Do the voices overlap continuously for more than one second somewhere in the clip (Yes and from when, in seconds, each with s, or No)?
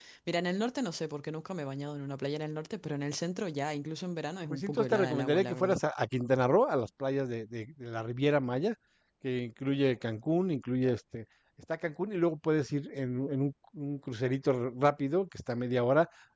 Yes, from 4.5 s